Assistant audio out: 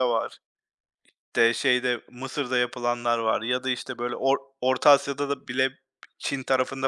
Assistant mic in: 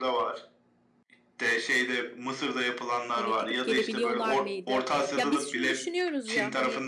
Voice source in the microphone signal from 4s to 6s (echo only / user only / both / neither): both